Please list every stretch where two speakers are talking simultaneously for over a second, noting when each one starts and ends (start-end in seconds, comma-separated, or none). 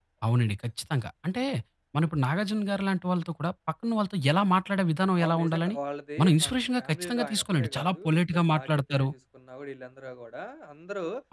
6.2-9.1